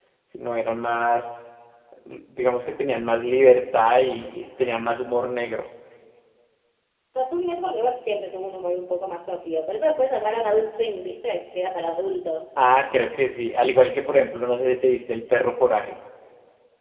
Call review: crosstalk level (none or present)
none